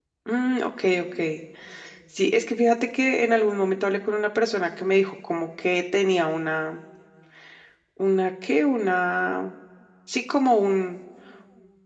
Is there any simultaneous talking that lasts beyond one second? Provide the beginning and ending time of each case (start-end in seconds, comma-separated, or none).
none